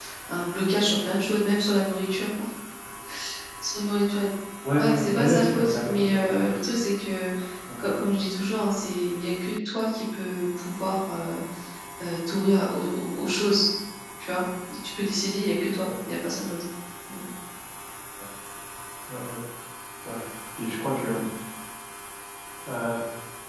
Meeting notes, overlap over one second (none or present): present